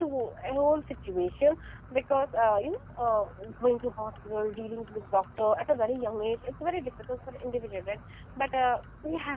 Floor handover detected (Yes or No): No